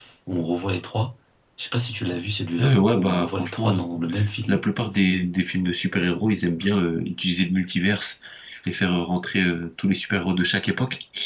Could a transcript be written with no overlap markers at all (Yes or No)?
No